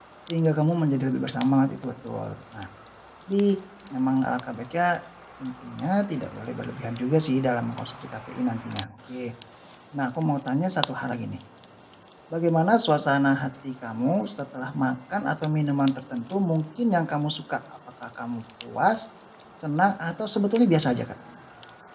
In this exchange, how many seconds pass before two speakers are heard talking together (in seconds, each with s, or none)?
none